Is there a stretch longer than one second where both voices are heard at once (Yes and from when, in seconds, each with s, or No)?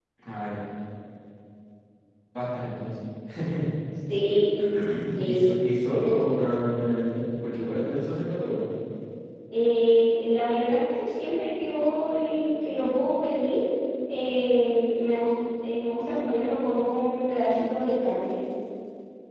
No